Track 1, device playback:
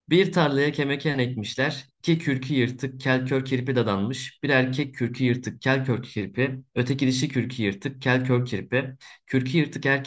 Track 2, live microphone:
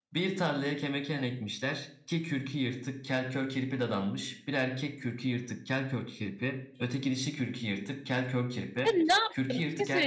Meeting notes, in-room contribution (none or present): present